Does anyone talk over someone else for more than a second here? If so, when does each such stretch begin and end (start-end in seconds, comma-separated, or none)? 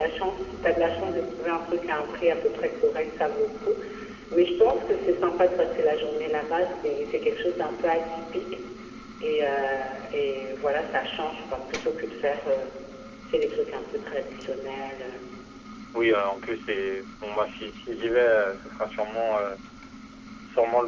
none